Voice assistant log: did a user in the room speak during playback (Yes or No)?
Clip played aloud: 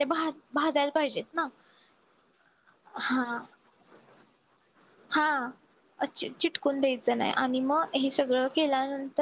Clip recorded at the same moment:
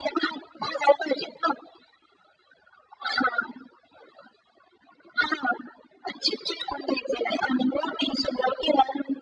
No